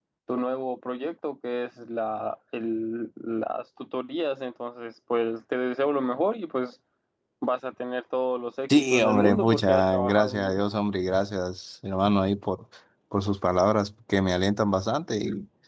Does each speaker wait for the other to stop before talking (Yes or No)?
No